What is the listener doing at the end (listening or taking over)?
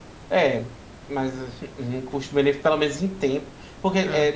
listening